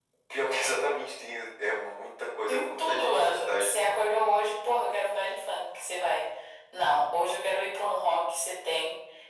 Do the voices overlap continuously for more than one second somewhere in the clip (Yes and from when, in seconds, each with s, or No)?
Yes, from 2.5 s